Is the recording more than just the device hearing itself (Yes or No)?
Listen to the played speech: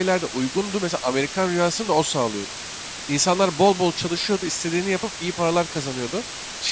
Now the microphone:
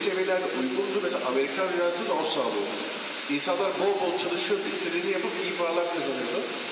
No